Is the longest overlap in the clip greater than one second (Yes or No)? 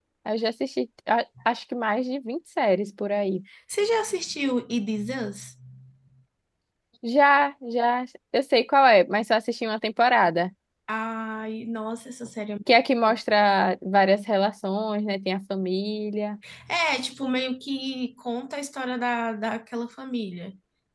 No